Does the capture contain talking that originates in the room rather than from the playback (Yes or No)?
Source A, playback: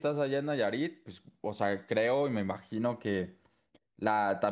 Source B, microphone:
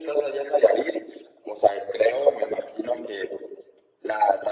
No